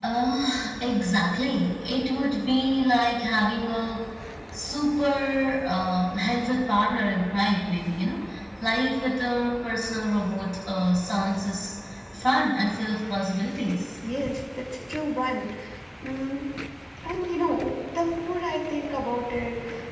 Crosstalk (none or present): none